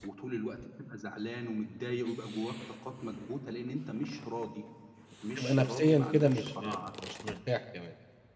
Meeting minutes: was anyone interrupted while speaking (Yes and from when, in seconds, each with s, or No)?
Yes, from 5.4 s